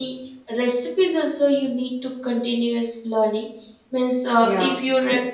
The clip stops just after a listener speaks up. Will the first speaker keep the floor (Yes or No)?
Yes